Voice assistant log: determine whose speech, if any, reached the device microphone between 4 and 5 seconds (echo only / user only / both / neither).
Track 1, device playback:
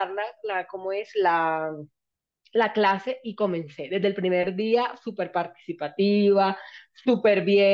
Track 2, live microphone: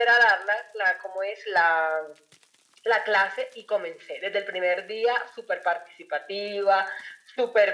echo only